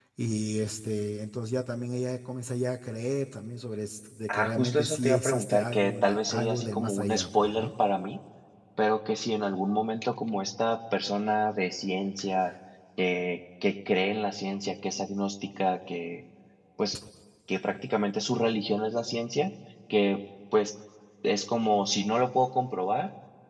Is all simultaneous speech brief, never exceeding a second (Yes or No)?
No